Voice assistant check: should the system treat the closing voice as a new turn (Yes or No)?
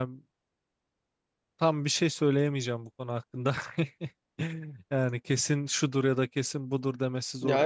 Yes